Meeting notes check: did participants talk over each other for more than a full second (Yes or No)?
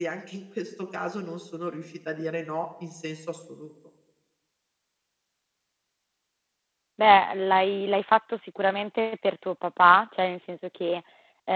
No